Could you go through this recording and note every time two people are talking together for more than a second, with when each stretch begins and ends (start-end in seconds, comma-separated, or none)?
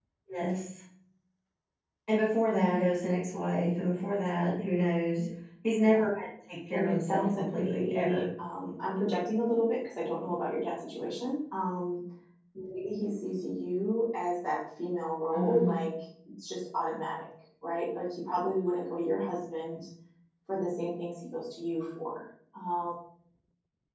6.7-8.2